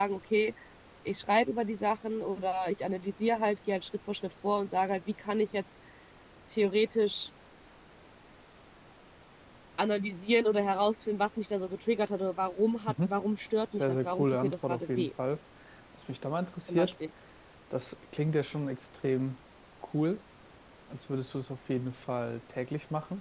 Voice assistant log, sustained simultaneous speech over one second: present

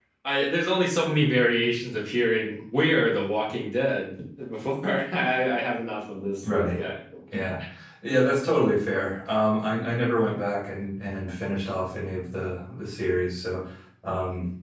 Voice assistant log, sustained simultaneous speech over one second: none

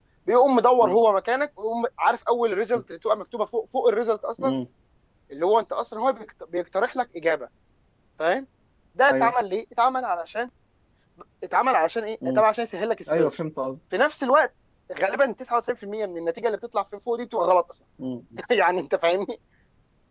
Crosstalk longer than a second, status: none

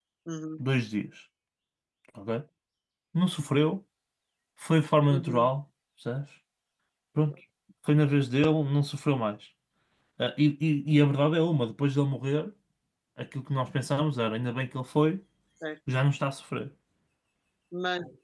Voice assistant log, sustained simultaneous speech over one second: none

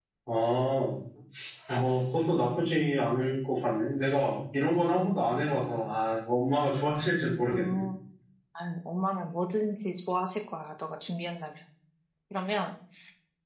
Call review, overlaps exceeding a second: none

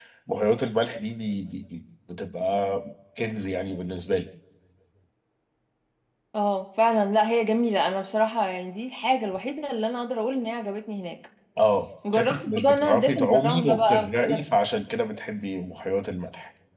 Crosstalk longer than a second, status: present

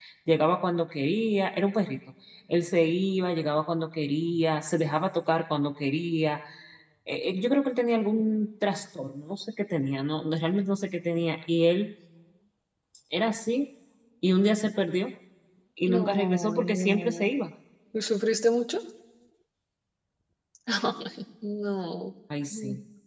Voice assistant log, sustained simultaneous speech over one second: present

